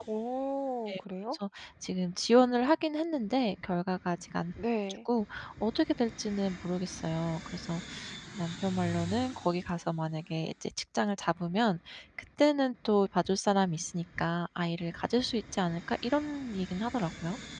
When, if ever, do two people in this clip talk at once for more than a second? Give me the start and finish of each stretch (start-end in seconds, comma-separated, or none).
none